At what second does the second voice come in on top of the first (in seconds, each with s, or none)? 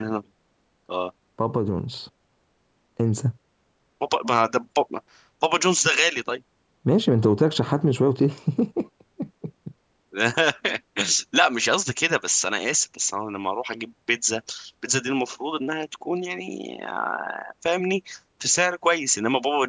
none